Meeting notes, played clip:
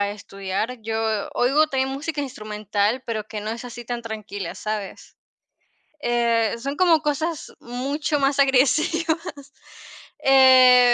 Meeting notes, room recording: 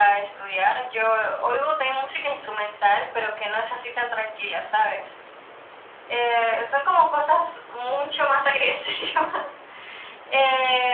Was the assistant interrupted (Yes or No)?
No